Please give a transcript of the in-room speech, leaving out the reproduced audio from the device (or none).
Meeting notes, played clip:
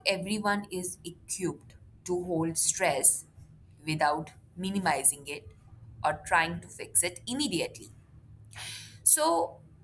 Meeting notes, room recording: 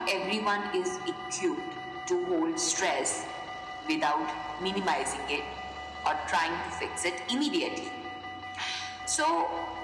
none